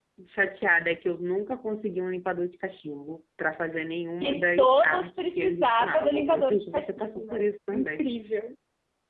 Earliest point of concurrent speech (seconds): 4.2 s

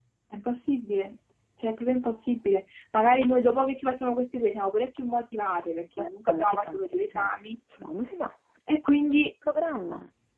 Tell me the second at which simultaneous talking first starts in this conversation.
5.7 s

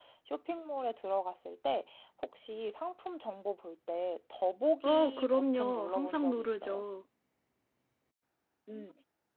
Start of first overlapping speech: 4.8 s

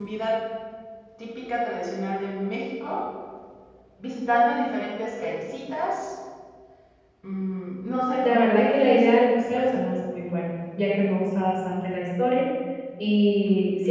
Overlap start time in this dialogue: 8.2 s

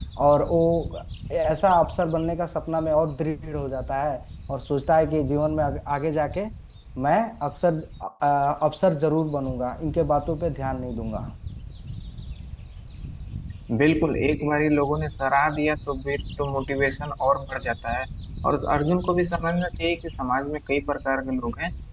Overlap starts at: none

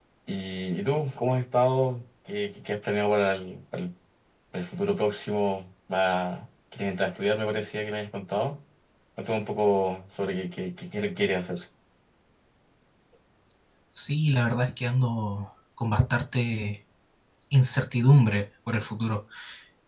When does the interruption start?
none

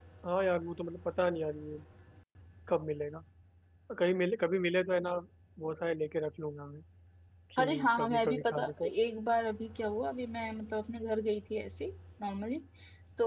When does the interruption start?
7.6 s

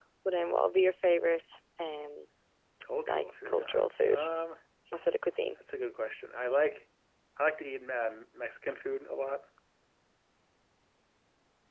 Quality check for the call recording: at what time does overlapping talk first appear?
3.1 s

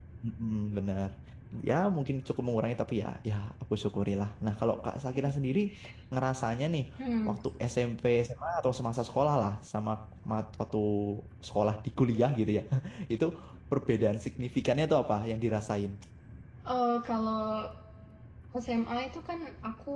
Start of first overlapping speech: none

